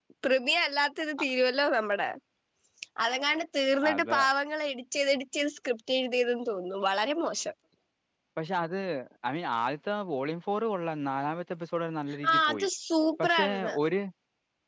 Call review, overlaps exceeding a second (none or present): none